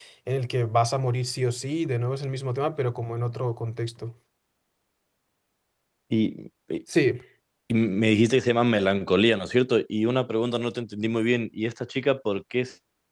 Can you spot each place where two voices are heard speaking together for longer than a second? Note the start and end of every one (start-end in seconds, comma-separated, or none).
none